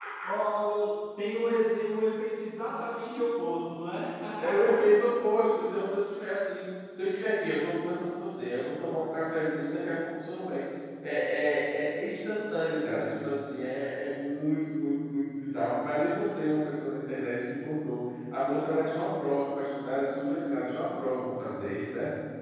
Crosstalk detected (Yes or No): No